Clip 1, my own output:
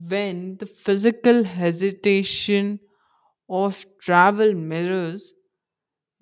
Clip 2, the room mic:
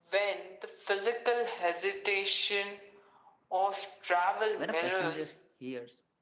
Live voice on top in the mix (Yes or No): No